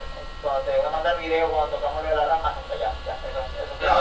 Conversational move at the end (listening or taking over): taking over